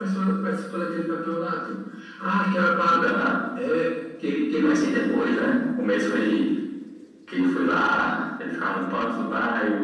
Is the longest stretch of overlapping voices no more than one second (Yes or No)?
Yes